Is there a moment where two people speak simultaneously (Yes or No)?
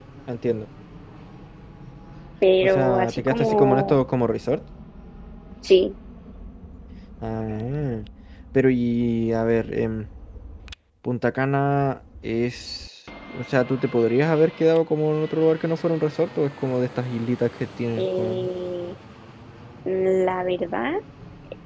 Yes